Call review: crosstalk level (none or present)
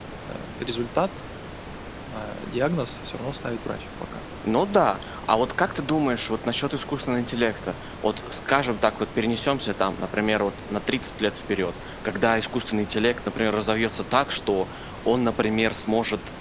none